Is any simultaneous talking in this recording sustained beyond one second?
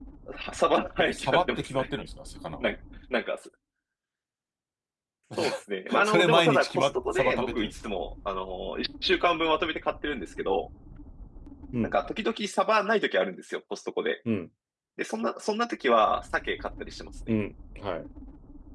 Yes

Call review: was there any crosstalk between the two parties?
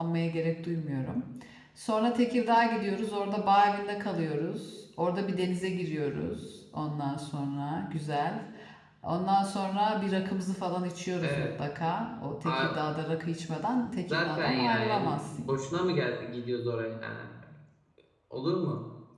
Yes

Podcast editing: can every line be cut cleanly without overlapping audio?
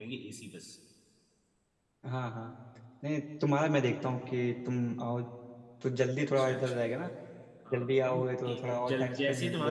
No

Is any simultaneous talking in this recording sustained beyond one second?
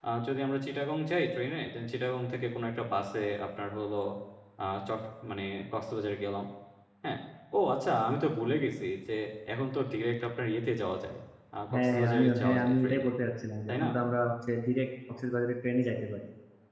Yes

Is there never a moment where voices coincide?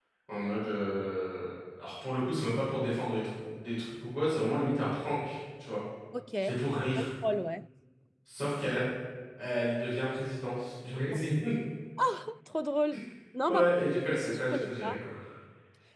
No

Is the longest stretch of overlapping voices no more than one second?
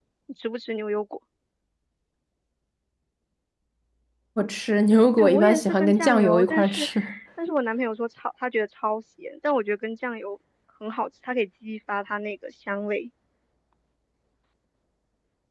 No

